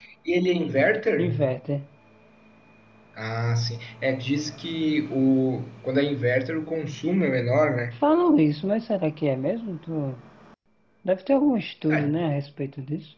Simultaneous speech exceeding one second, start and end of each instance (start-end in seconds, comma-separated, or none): none